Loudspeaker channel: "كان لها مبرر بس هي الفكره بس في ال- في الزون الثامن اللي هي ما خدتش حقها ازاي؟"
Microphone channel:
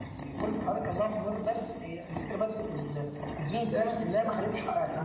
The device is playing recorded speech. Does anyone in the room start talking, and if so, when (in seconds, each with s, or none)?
3.6 s